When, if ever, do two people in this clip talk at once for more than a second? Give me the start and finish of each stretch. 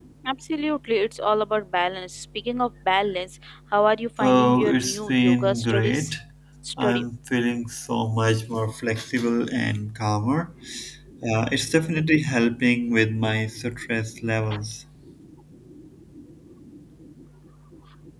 4.2-6.1

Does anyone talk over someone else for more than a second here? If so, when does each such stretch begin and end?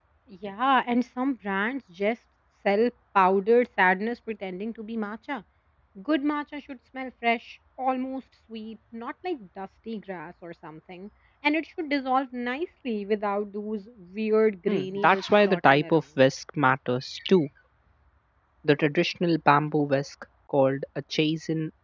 14.7-16.0

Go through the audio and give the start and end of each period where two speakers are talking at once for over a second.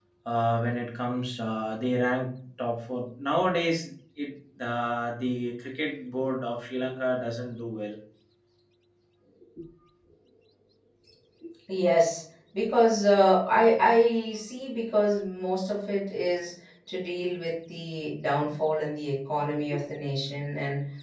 none

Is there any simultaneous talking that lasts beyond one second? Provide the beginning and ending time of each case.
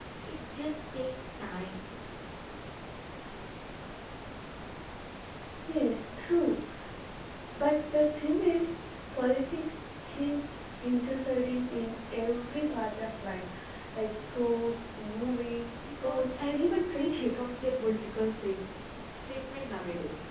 16.0-17.4

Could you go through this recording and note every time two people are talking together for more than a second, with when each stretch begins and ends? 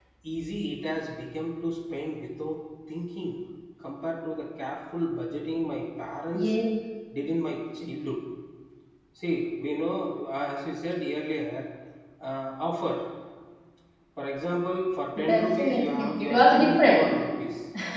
15.3-17.1

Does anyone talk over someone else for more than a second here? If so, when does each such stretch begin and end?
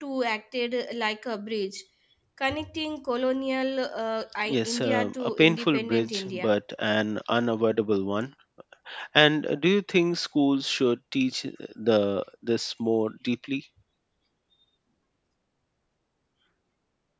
4.4-6.5

